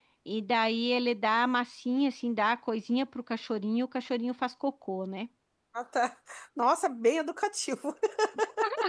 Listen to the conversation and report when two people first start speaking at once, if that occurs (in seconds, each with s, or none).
none